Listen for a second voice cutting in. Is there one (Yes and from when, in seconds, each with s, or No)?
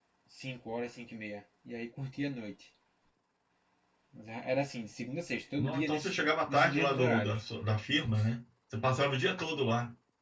Yes, from 5.6 s